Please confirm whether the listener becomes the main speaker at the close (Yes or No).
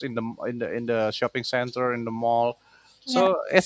No